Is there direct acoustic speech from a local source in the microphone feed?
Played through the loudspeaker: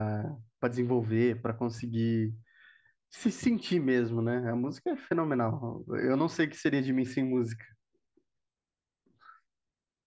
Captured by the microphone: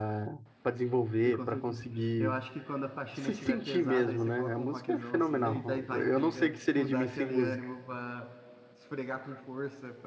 Yes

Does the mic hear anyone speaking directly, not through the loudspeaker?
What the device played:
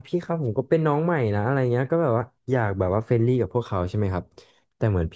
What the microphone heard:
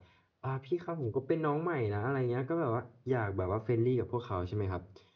No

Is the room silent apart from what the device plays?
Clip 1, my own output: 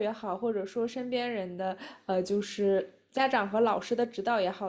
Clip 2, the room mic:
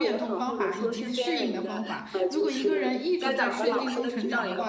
No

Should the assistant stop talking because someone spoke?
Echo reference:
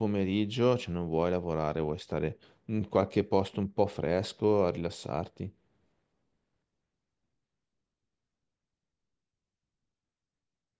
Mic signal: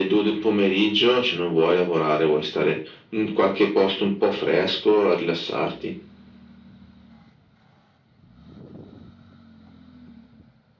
No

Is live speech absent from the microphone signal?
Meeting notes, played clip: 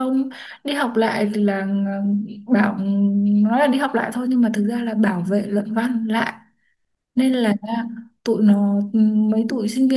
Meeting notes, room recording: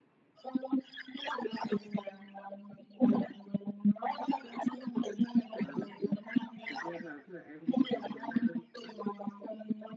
No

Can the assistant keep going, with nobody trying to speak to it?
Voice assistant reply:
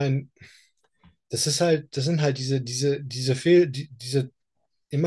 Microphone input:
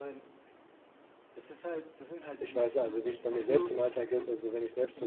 No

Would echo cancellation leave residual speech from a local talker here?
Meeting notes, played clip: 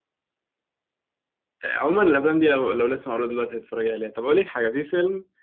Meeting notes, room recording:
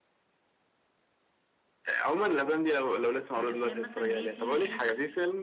Yes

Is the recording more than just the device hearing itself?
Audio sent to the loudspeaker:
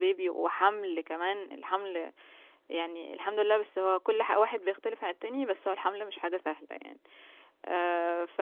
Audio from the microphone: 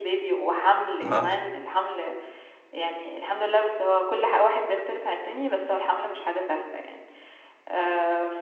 Yes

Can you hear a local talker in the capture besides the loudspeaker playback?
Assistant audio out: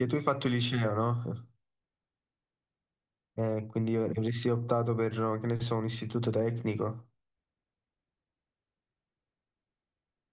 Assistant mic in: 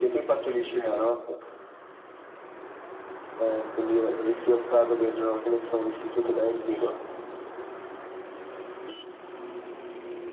No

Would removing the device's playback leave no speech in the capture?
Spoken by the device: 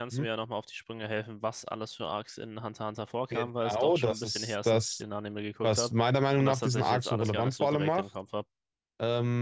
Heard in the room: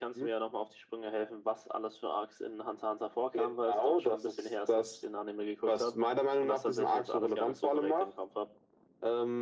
Yes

